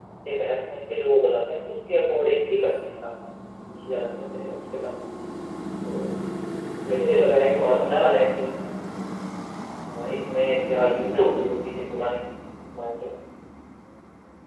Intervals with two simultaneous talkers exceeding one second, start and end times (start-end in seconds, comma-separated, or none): 7.0-8.2